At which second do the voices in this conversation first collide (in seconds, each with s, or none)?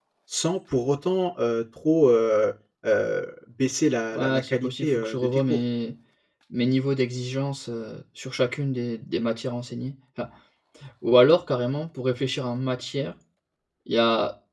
4.1 s